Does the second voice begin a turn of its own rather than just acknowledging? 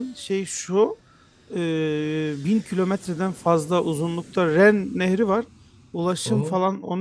No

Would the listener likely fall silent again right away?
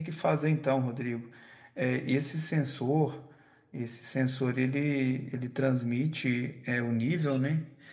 Yes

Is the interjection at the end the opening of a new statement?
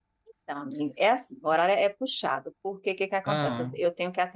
No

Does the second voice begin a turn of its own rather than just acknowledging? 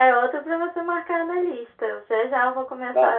Yes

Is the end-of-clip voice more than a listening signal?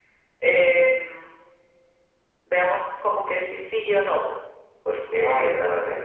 No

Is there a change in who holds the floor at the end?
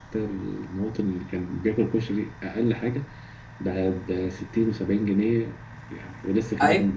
Yes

